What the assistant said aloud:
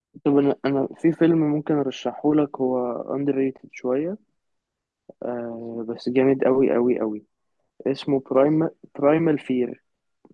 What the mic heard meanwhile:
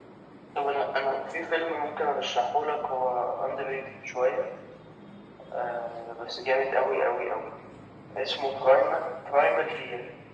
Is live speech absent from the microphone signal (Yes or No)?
Yes